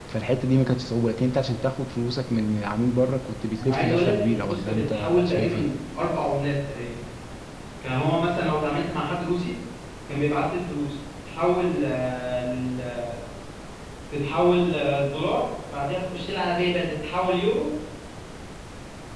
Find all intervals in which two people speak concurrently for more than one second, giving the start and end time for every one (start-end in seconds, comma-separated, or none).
3.6-5.7